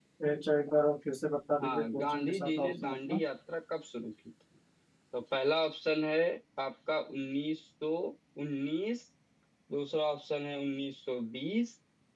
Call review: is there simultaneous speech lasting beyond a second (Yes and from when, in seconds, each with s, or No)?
Yes, from 1.5 s